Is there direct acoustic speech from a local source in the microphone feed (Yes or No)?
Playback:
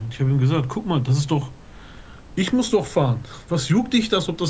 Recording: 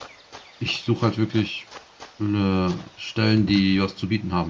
Yes